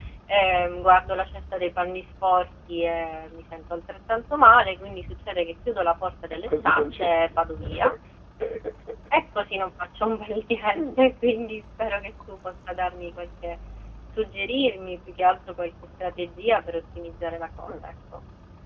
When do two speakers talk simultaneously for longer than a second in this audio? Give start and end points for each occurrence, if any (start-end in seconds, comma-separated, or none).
6.5-7.7